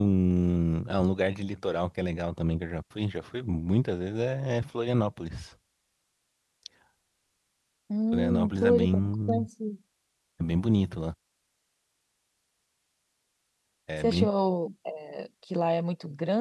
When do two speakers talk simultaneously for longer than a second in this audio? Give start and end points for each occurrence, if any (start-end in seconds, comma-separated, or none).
8.1-9.5